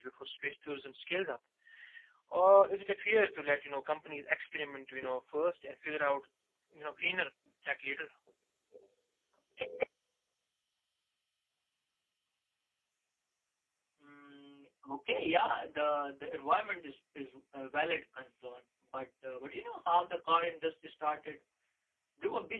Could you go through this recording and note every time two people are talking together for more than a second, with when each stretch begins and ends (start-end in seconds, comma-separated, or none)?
none